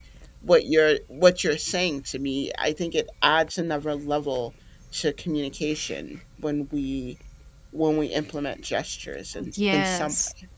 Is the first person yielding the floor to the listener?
Yes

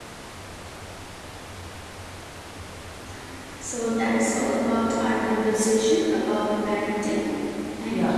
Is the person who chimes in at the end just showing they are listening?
No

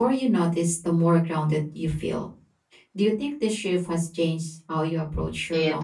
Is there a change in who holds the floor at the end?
Yes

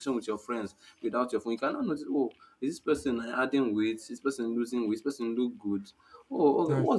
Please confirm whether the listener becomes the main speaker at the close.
No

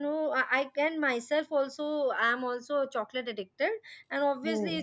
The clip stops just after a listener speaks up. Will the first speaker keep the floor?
Yes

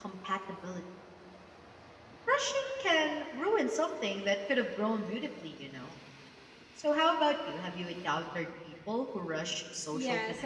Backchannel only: No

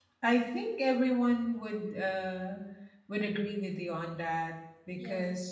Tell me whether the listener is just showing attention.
Yes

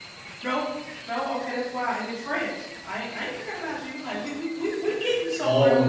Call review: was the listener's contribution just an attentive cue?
No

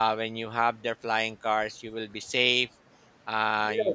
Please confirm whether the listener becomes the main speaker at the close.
No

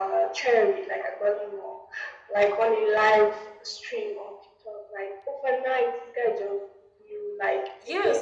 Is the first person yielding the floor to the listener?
Yes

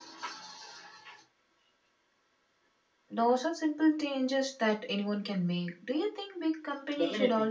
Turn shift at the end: Yes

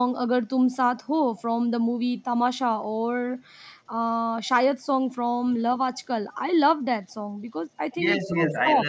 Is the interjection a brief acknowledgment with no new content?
No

